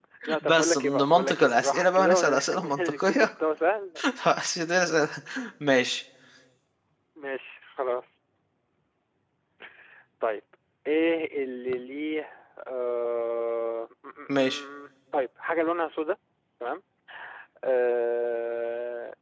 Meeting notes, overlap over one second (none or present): present